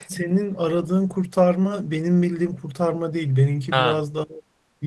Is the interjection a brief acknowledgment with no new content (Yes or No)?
Yes